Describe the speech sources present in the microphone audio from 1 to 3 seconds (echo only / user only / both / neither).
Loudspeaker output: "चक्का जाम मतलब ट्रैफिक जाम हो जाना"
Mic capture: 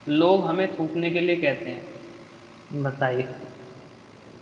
user only